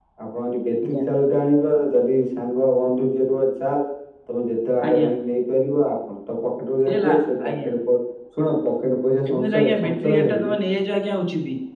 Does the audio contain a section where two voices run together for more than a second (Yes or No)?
Yes